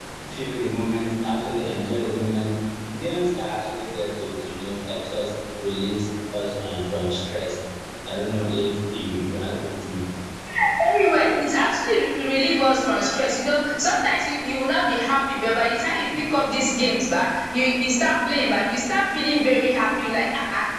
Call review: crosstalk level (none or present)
none